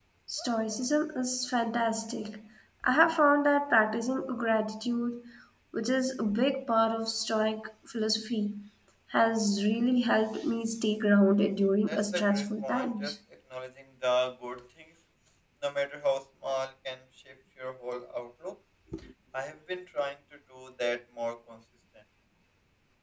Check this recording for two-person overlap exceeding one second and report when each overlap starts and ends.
11.9-13.1

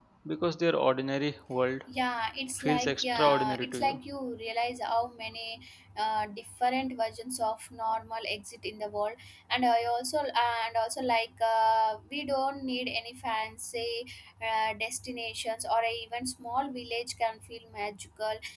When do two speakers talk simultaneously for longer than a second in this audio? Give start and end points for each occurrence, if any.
2.6-4.0

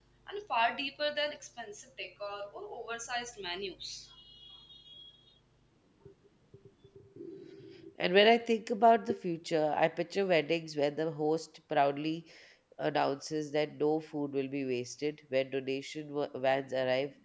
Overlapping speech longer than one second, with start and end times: none

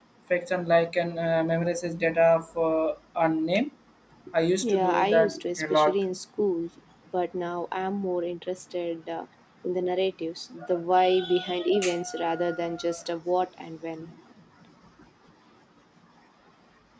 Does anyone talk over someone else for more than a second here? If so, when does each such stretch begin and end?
4.6-6.0

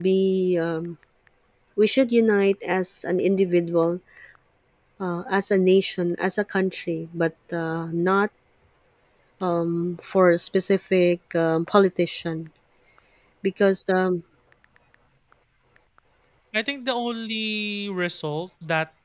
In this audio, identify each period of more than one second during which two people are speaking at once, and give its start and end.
none

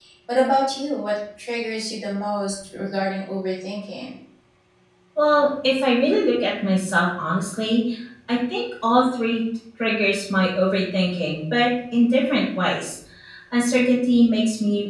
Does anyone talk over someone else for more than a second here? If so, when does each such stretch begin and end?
none

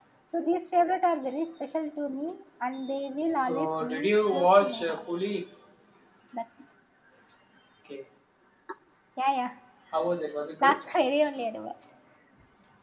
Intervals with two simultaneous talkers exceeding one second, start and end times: 3.3-5.0

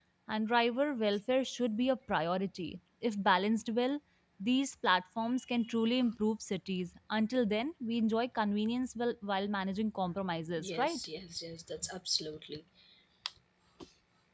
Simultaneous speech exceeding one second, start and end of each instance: none

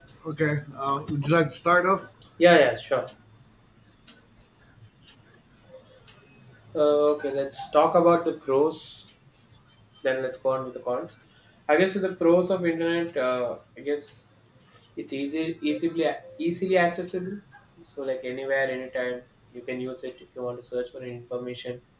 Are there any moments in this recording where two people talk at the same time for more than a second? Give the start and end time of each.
none

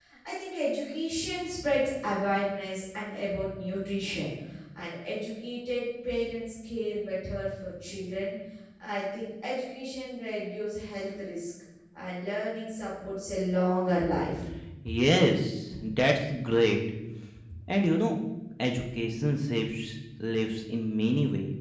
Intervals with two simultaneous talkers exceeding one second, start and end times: none

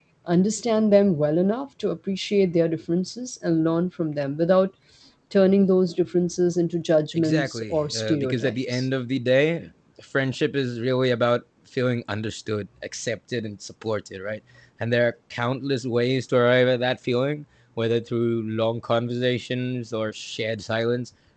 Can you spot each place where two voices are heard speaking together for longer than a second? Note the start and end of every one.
7.1-8.8

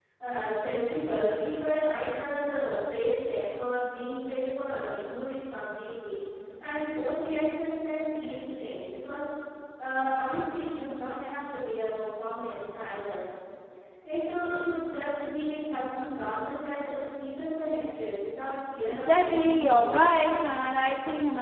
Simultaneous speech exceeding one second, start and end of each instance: 18.9-20.1

